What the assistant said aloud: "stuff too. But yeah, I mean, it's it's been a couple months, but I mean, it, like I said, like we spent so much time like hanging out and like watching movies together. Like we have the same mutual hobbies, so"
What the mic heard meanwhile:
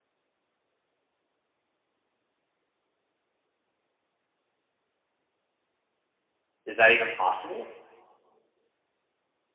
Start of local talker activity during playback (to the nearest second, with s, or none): 7 s